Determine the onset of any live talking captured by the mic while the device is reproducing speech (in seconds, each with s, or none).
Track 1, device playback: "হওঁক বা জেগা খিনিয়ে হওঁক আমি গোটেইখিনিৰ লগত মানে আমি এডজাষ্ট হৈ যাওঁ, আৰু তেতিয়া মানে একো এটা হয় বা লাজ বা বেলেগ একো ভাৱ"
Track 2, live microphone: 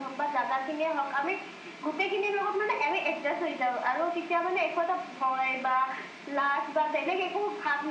none